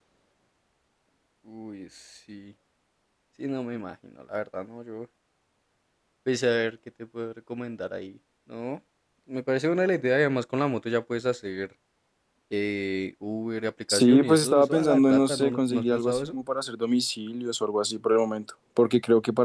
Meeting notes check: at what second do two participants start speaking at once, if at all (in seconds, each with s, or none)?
13.9 s